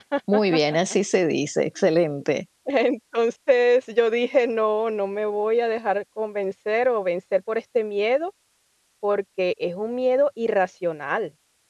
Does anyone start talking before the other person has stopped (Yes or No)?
No